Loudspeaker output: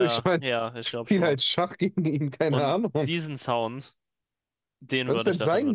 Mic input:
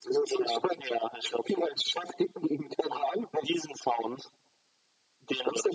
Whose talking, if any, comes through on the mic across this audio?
echo only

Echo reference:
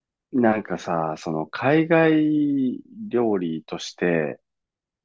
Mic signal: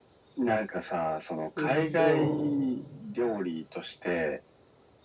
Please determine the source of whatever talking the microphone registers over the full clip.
both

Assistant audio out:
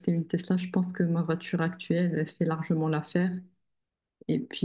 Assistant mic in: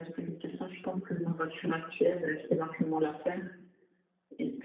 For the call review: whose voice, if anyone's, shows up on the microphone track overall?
echo only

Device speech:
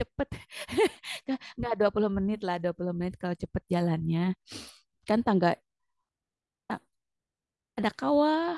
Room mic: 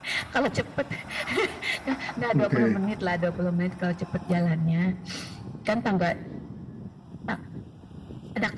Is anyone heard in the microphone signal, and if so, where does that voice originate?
both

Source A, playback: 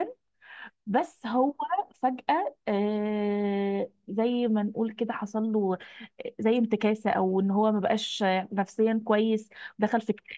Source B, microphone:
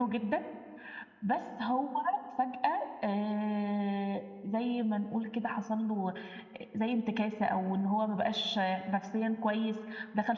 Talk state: echo only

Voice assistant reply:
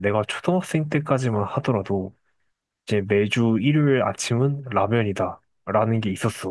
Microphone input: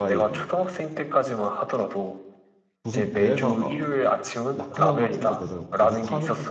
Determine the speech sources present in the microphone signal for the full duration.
both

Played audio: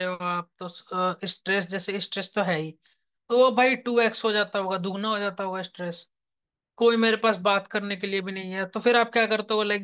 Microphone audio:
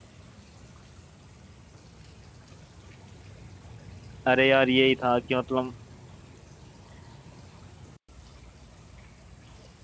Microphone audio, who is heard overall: user only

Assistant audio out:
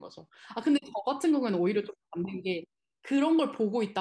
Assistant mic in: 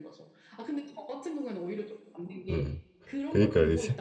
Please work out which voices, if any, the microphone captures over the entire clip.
both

